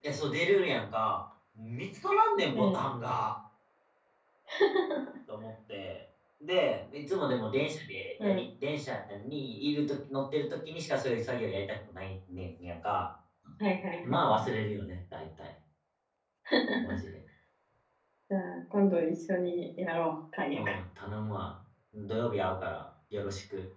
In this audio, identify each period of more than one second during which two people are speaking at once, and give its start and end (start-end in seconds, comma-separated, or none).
none